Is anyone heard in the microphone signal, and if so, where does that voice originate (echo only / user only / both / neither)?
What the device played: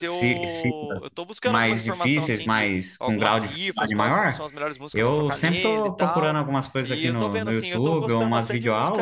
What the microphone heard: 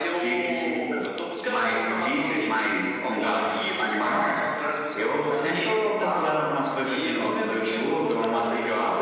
echo only